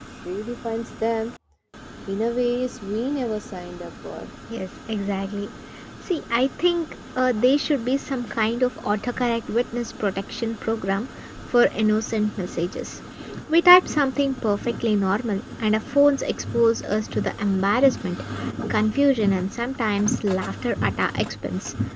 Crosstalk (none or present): none